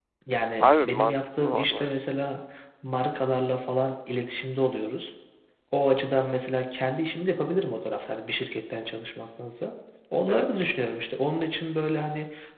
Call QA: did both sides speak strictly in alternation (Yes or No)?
No